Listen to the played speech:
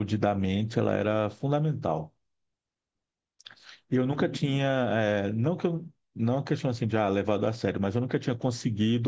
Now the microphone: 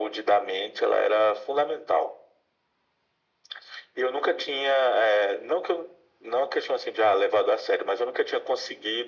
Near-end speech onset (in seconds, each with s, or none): none